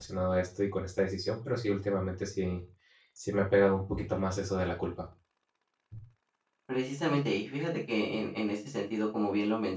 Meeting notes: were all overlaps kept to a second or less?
Yes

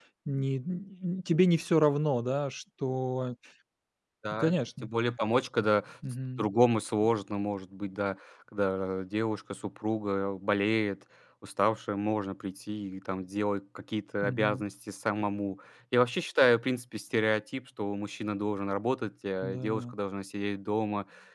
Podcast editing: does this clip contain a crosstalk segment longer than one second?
No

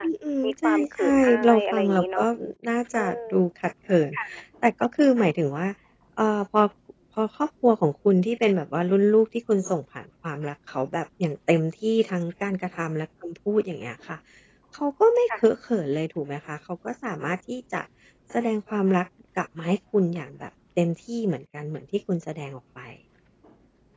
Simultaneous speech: Yes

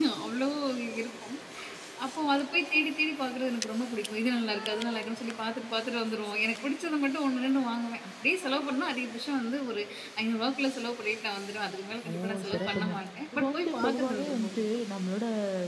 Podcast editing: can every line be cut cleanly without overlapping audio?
No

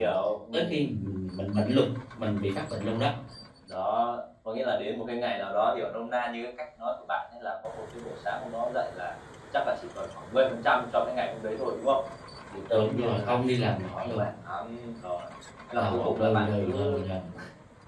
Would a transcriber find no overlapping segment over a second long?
No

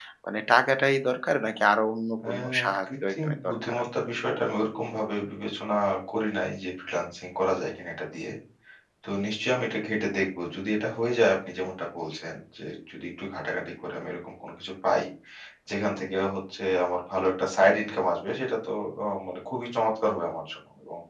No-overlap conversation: No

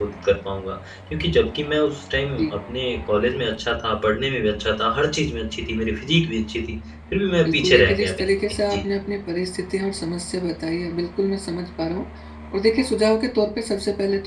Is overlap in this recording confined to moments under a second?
No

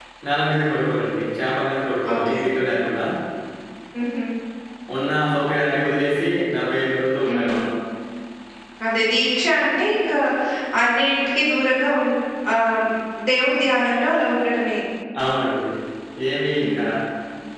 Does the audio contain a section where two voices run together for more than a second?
No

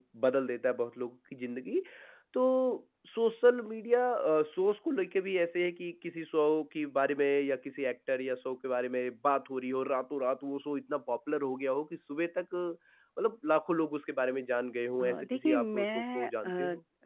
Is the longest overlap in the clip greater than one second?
Yes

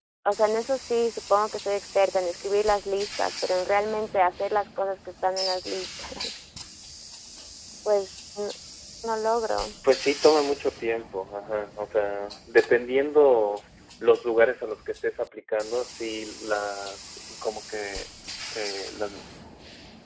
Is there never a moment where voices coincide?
Yes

